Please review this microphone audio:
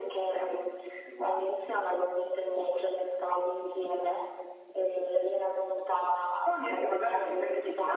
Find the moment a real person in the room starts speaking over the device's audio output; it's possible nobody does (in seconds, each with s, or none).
none